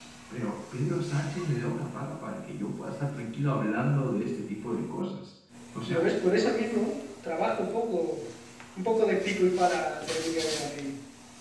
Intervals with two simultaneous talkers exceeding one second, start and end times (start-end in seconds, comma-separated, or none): none